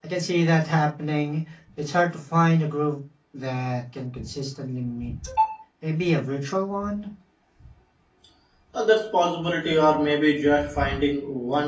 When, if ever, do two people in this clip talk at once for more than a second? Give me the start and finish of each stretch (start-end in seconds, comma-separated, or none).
none